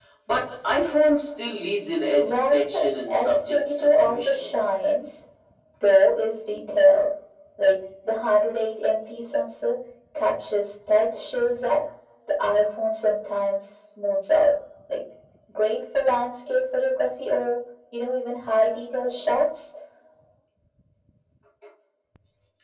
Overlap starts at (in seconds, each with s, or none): 2.1 s